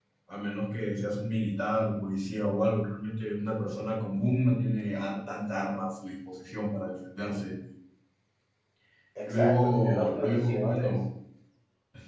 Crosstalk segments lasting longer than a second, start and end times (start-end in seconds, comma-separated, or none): 9.2-10.9